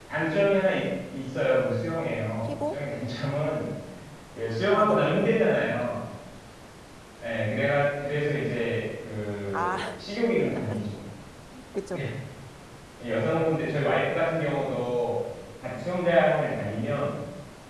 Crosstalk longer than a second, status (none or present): none